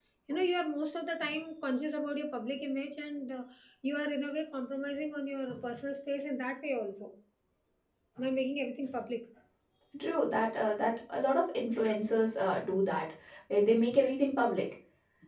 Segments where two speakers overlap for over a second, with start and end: none

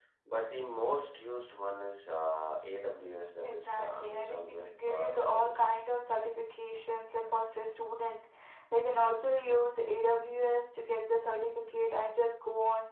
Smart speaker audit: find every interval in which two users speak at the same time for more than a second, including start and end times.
3.4-5.8

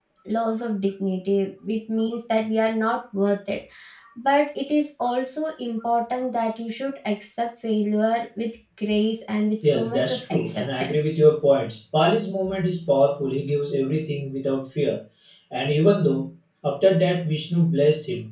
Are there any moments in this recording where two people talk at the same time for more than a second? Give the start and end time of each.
9.6-11.0

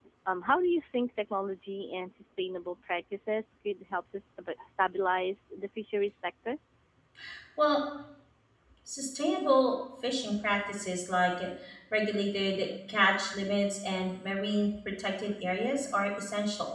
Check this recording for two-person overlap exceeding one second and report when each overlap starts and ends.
none

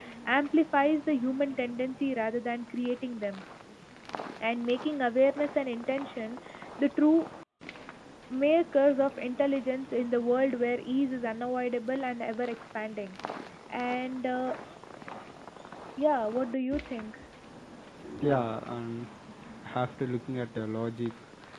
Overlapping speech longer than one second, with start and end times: none

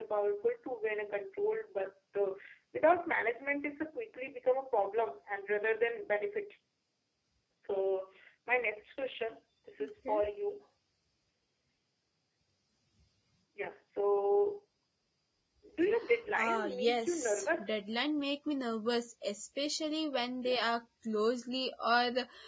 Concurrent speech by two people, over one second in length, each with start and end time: 16.4-17.7

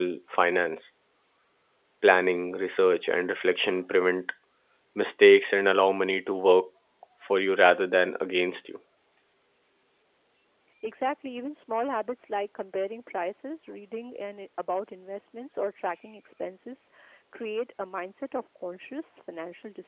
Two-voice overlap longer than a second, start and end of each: none

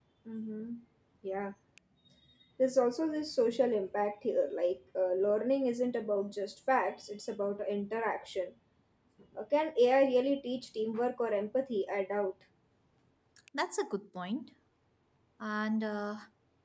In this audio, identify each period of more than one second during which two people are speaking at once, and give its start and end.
none

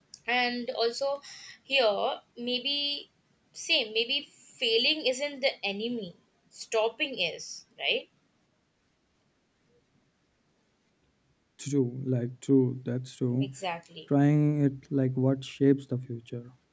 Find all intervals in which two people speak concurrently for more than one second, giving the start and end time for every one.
none

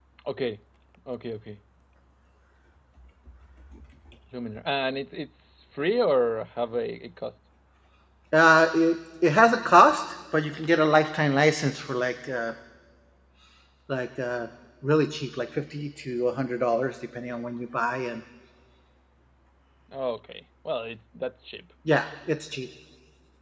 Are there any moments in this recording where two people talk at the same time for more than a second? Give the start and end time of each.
none

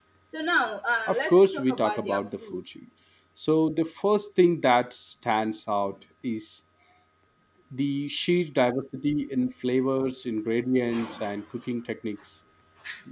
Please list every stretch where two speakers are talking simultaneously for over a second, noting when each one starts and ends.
1.1-2.6

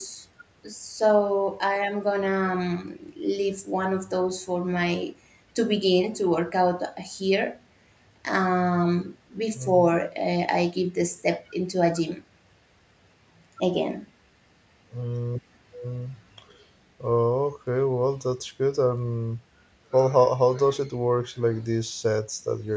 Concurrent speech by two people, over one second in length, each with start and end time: none

